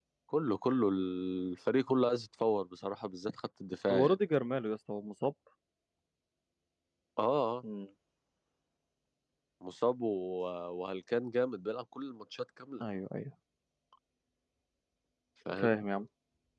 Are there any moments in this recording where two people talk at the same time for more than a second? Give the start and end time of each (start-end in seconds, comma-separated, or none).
none